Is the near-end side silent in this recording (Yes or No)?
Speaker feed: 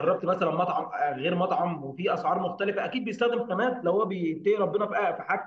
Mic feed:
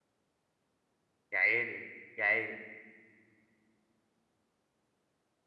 No